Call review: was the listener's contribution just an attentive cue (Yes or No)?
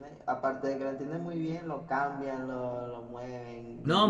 No